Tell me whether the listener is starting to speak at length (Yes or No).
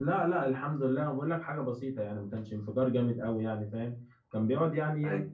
No